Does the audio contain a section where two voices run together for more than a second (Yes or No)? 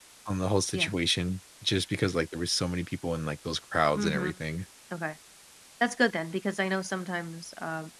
No